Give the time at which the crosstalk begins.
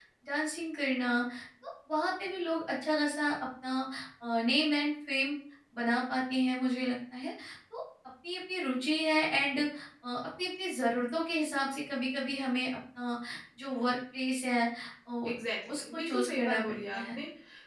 15.7 s

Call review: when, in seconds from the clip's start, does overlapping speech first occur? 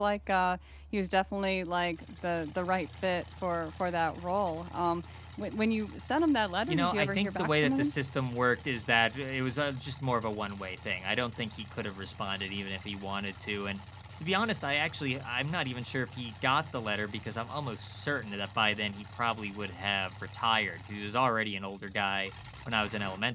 6.7 s

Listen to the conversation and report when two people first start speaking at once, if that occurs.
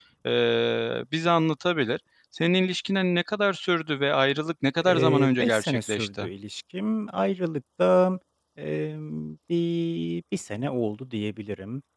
4.8 s

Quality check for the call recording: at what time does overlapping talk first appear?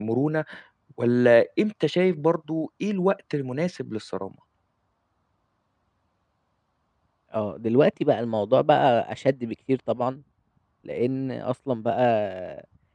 none

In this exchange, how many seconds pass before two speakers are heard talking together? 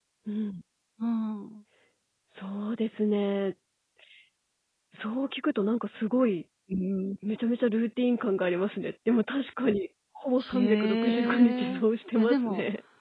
10.4 s

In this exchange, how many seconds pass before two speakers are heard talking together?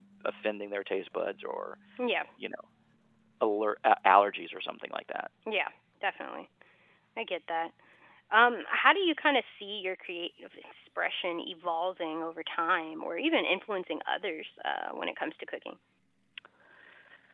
none

